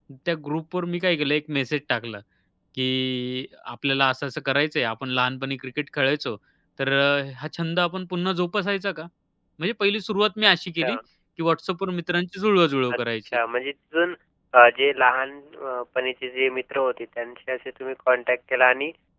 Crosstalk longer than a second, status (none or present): none